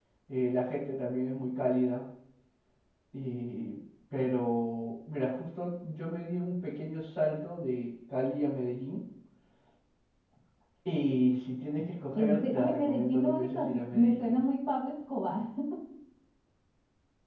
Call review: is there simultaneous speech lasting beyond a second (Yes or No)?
Yes